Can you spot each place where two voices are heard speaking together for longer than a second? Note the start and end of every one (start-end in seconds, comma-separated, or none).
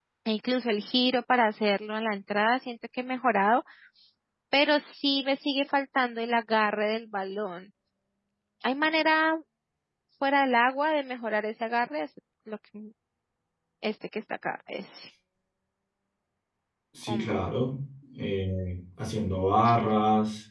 none